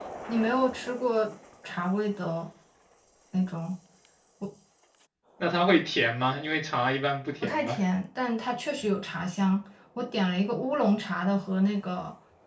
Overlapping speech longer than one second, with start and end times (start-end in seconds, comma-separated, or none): none